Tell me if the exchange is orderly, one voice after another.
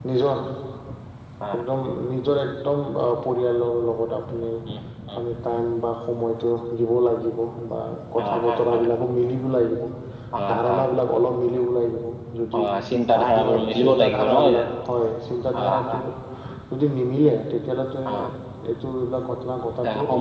No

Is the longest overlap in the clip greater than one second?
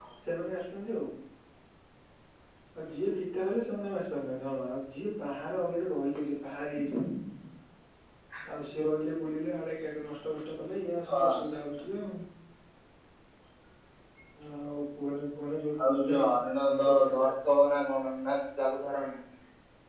Yes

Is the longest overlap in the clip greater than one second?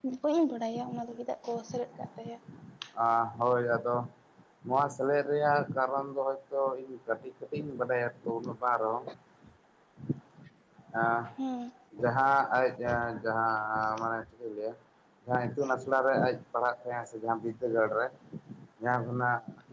No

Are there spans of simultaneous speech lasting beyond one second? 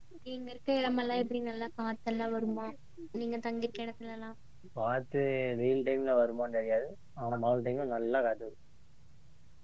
No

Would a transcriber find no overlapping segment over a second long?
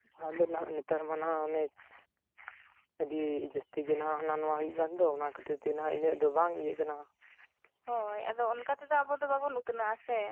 Yes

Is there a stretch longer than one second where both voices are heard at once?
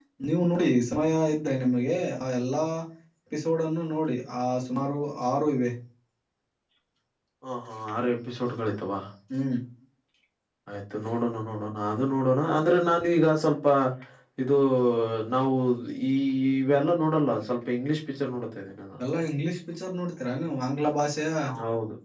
No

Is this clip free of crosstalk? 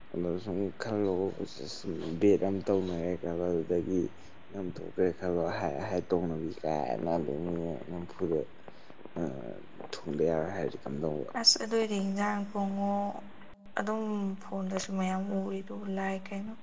Yes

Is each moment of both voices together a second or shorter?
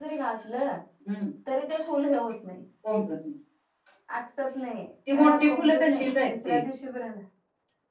No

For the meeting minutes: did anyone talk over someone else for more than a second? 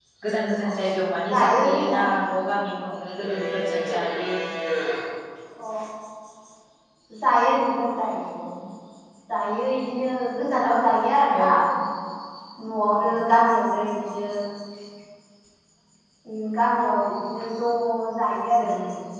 Yes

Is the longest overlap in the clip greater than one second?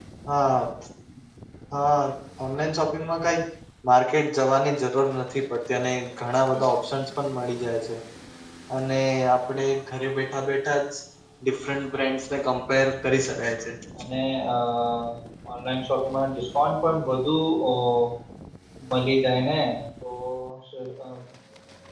No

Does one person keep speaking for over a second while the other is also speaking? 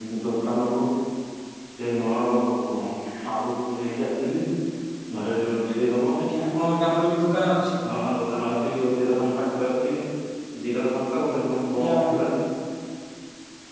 No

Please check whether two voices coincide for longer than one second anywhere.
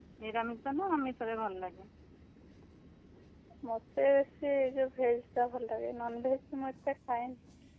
No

